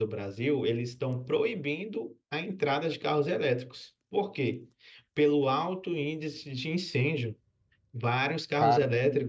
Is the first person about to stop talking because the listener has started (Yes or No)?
No